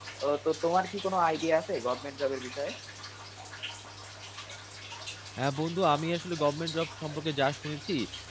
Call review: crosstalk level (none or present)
none